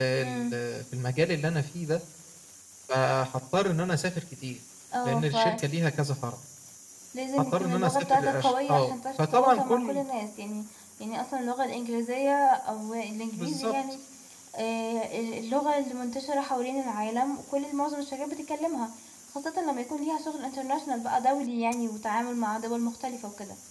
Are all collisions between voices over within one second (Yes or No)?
No